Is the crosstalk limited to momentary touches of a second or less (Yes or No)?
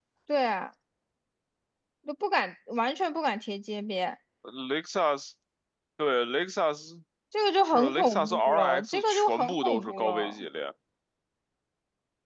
No